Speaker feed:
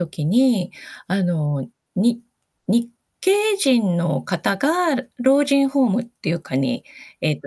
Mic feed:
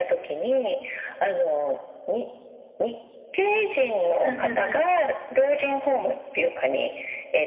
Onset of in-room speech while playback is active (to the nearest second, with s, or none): 4 s